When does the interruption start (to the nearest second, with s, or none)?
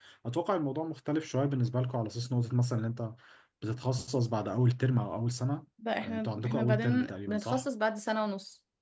6 s